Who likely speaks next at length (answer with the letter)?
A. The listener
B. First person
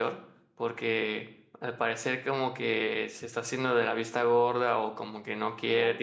B